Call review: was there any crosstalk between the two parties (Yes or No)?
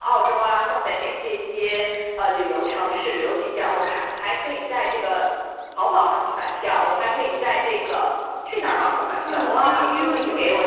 Yes